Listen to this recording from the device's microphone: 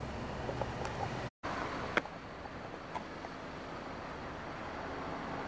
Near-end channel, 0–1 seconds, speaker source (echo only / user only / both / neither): neither